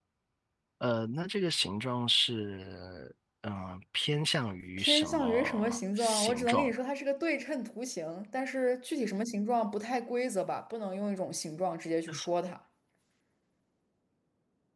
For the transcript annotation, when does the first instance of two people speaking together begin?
4.8 s

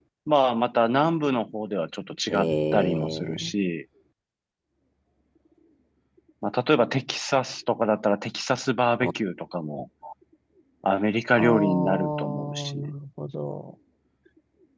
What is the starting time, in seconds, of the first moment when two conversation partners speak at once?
2.3 s

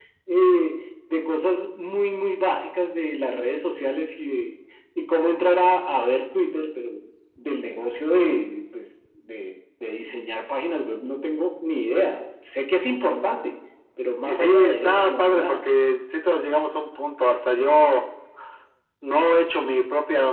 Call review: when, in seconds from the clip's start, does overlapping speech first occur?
14.3 s

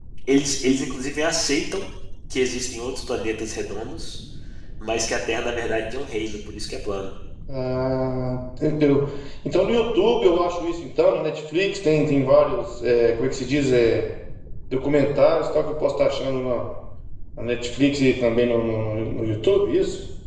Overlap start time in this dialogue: none

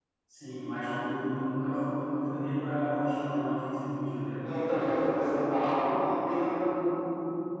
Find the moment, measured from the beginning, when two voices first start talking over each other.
none

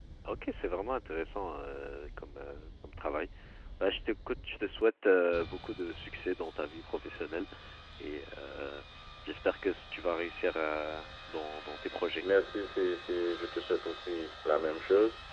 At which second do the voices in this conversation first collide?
none

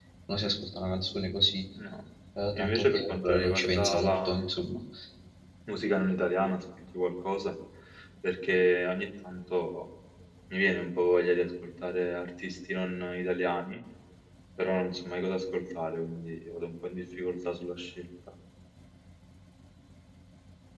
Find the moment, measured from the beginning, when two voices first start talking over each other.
2.5 s

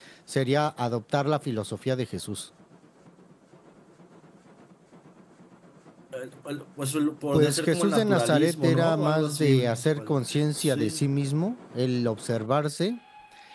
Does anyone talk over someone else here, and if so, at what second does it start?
7.3 s

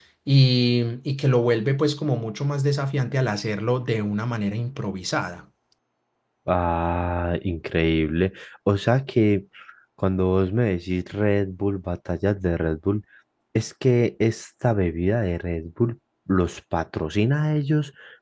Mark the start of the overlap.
none

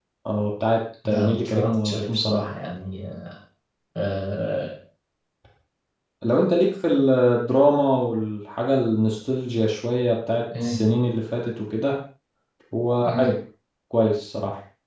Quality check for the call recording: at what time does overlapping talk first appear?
1.1 s

